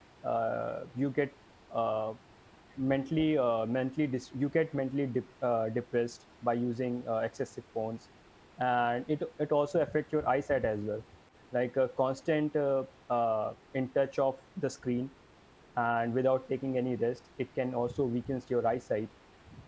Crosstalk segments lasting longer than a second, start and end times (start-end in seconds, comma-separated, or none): none